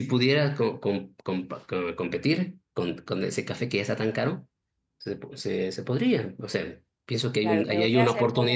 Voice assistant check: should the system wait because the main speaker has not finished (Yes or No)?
No